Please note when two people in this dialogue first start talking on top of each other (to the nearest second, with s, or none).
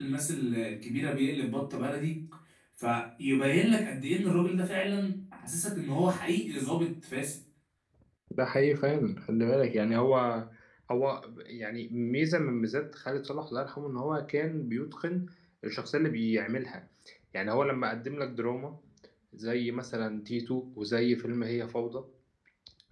none